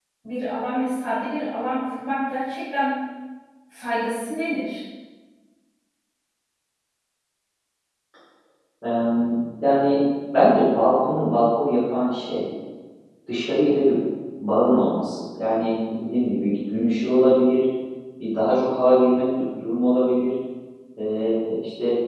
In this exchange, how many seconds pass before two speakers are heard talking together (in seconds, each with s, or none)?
none